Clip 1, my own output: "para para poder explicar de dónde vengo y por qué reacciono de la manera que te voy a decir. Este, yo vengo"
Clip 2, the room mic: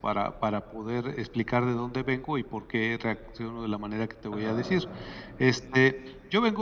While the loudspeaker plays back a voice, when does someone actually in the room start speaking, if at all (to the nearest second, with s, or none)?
4 s